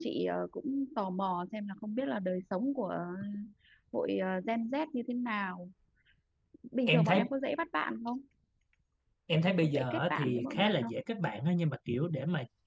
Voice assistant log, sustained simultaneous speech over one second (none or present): present